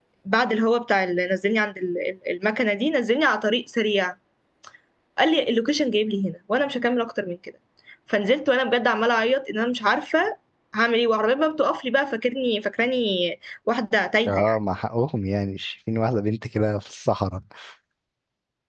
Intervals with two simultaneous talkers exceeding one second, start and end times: none

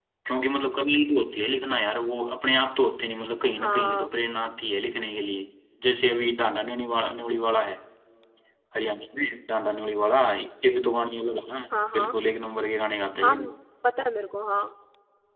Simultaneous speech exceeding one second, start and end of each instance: none

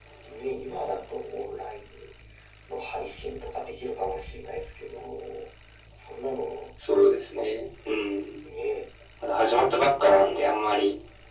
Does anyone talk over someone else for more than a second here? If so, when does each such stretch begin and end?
none

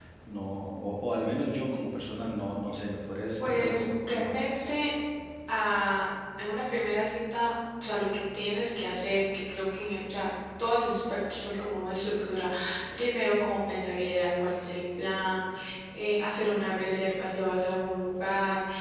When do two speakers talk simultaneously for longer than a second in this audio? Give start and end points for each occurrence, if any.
3.5-4.7

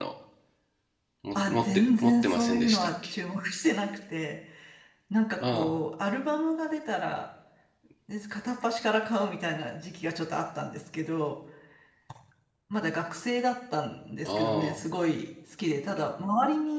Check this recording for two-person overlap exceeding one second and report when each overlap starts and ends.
1.3-3.2

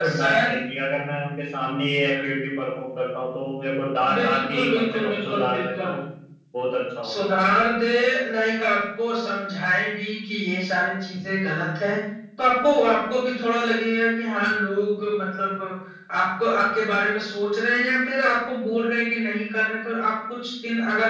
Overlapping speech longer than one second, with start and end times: 4.2-6.0

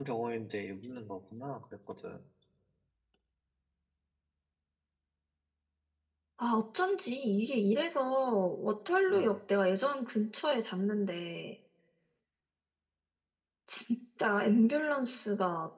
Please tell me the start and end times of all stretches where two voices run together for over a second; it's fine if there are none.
none

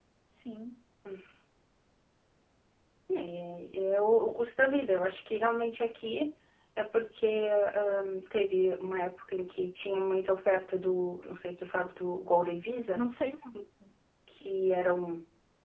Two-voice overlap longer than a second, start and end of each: none

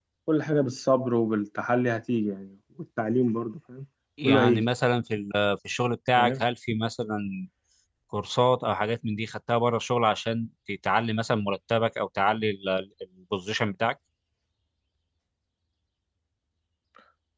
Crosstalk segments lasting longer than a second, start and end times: none

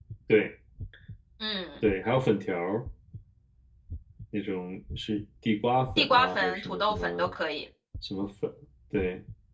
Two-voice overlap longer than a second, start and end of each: 6.0-7.3

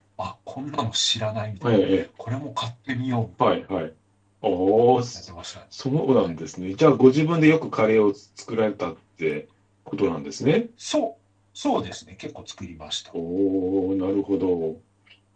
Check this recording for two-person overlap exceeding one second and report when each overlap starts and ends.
none

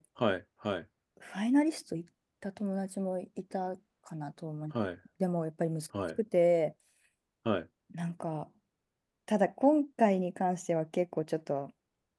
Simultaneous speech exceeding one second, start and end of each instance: none

